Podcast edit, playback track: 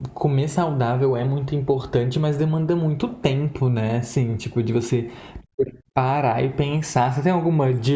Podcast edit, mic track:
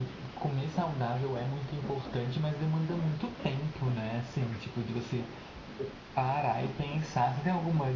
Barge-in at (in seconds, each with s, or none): none